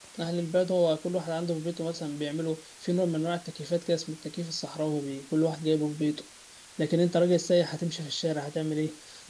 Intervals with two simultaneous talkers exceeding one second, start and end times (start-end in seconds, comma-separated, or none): none